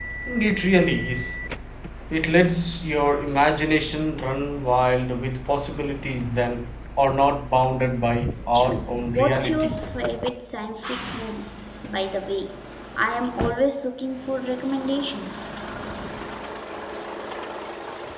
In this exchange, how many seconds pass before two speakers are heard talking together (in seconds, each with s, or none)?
8.5 s